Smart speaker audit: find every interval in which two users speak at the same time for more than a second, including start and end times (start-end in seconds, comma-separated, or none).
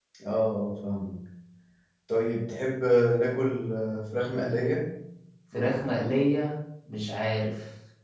none